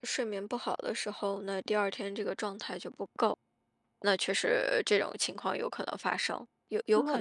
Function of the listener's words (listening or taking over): taking over